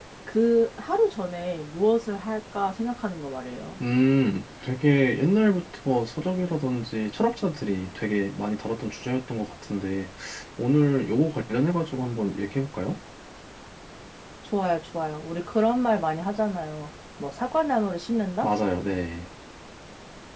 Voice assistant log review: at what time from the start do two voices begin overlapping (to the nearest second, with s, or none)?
none